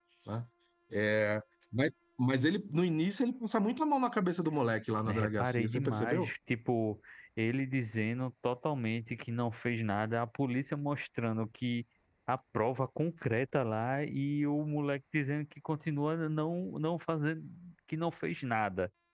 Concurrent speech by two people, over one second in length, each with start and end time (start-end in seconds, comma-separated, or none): 5.1-6.3